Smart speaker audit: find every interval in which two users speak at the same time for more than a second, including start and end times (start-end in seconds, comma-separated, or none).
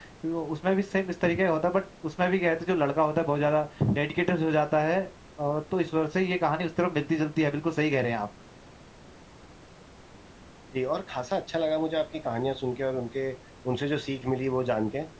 none